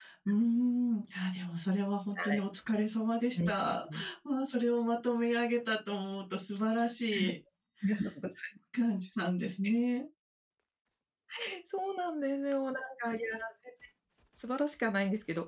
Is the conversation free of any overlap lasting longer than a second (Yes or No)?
Yes